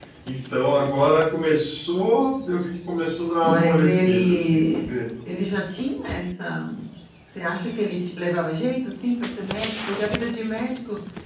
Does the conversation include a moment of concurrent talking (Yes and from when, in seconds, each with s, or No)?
Yes, from 3.4 s